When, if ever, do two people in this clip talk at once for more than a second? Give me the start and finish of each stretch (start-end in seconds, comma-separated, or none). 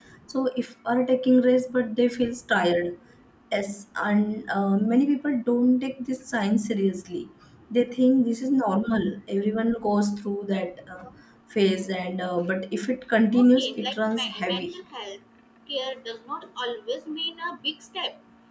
13.3-14.7